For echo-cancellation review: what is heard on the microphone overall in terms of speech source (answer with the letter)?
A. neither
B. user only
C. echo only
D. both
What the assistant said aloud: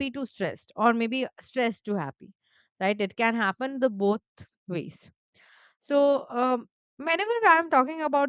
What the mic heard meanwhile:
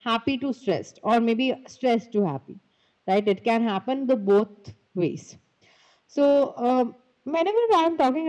C